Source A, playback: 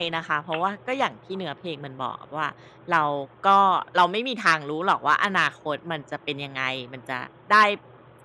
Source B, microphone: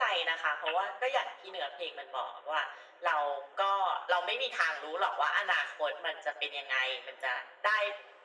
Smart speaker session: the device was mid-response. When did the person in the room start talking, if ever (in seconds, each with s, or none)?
none